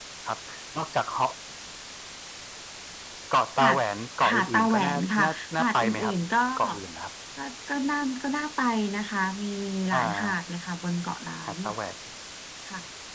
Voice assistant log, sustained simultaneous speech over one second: present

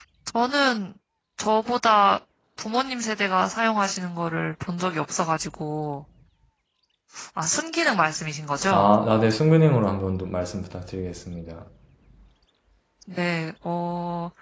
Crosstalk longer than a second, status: none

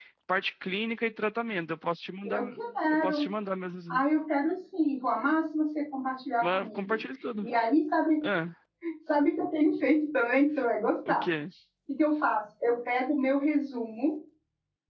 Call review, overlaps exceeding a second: none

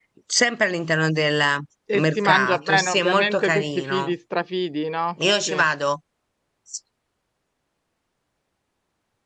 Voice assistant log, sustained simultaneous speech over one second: present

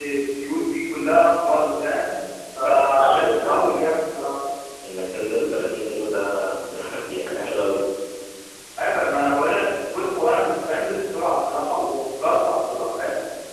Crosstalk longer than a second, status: present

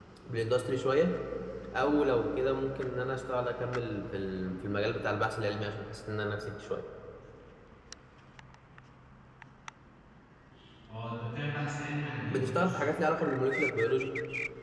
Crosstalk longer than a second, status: none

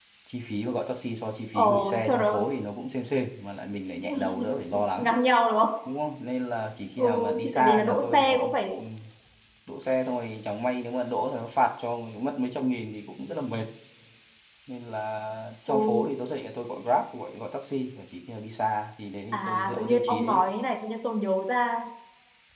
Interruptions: present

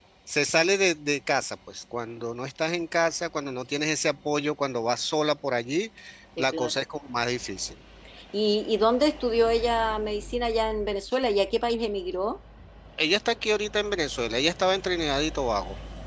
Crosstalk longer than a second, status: none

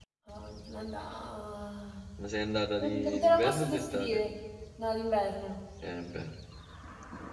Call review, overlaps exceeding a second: present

